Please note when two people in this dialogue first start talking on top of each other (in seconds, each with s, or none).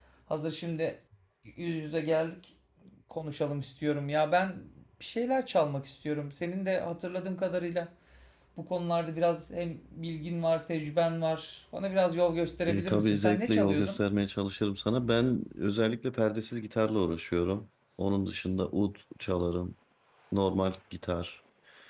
12.7 s